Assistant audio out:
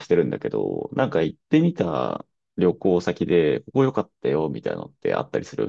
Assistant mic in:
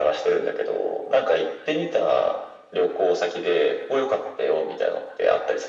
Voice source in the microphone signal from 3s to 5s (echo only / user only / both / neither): echo only